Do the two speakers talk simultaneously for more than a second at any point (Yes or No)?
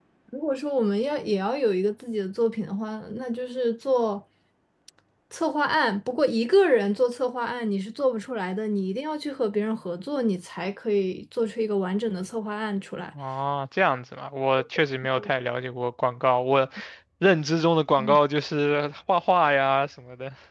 No